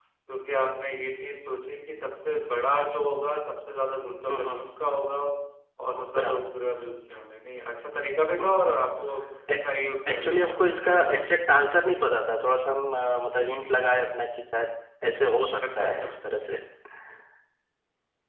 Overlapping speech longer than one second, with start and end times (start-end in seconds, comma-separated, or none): 10.1-11.3